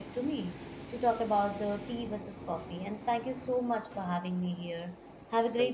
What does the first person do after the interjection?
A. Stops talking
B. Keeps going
A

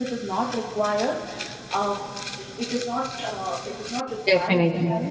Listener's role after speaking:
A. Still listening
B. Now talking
A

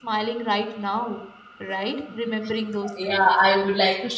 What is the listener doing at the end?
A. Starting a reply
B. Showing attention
A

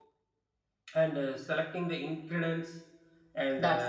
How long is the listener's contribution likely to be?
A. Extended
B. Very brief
B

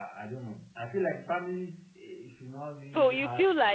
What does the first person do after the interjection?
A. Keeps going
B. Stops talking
B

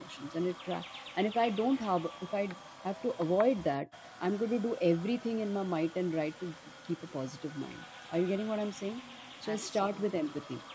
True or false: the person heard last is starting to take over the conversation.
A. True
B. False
B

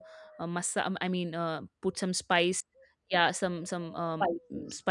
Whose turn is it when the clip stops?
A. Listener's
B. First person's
B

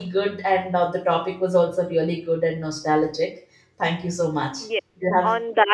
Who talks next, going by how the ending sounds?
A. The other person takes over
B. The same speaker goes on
A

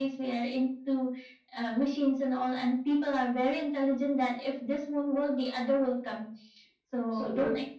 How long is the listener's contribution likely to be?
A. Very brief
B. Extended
A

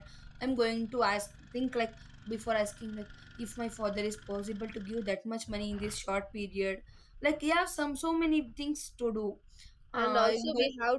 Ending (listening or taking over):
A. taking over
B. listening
A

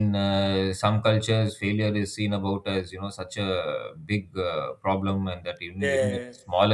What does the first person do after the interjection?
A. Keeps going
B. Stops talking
A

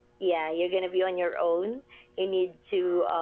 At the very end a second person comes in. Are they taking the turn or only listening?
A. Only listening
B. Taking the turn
A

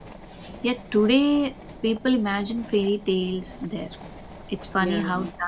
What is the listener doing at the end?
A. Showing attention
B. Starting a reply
A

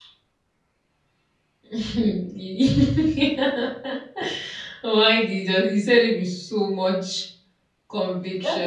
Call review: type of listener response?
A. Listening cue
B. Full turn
B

